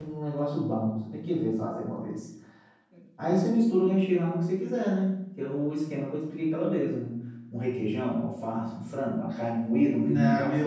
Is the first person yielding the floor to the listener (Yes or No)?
Yes